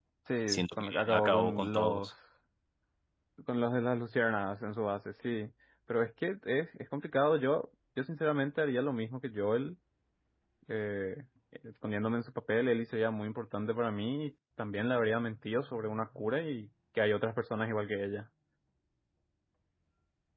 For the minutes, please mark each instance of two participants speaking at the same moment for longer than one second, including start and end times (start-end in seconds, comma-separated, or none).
0.7-2.1